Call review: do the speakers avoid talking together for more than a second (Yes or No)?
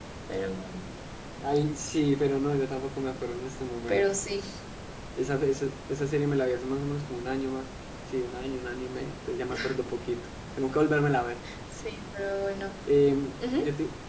Yes